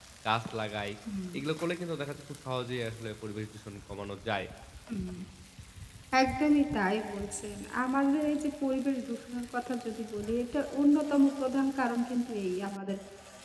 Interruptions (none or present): none